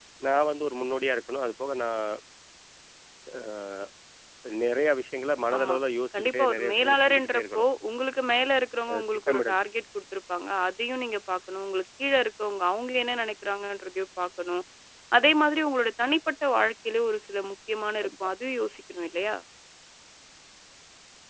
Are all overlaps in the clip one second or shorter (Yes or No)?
No